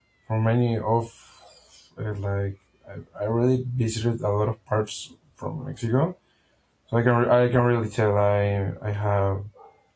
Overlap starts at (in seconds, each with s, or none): none